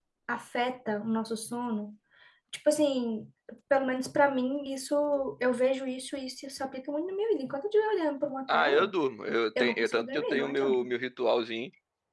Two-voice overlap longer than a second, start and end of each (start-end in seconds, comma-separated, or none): 9.6-10.9